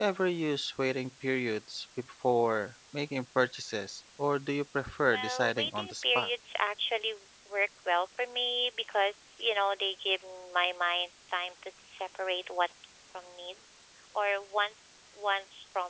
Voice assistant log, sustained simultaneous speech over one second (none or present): present